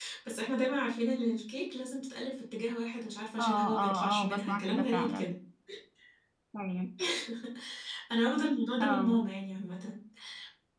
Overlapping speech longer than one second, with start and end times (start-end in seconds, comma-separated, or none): 3.4-5.3